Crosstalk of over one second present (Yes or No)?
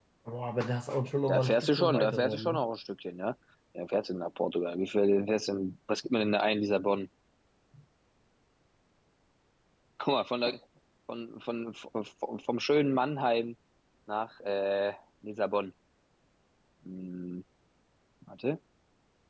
Yes